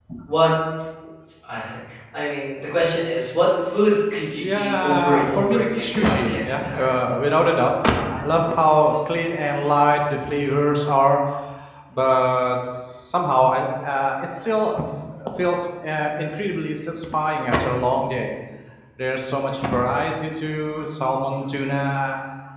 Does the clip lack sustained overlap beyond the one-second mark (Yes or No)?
No